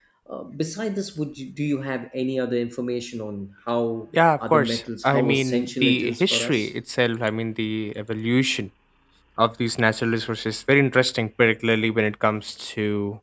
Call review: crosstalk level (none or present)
present